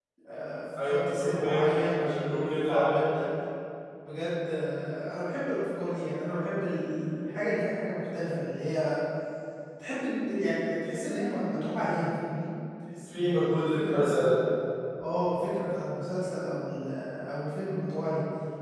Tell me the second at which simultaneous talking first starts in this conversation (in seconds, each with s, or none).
0.8 s